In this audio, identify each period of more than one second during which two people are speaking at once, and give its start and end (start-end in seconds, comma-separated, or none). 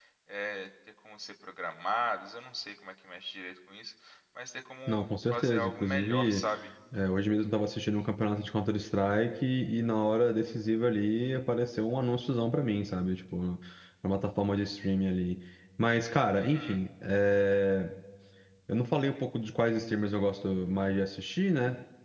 4.9-6.4